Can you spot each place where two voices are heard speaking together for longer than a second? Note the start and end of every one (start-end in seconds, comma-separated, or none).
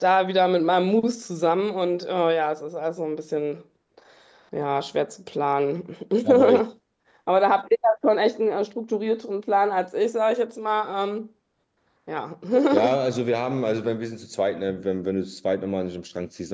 none